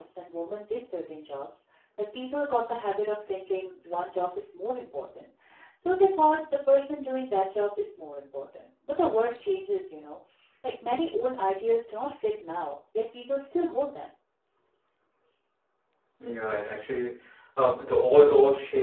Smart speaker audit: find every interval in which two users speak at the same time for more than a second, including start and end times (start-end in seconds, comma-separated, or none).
none